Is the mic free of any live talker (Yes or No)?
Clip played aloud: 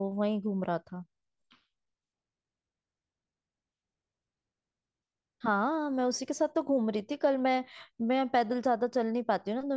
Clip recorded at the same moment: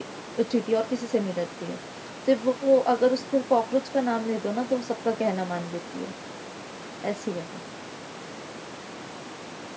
No